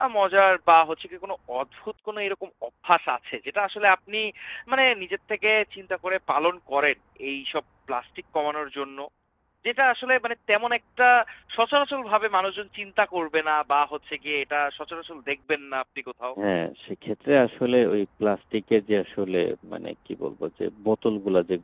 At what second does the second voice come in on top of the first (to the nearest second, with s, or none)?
none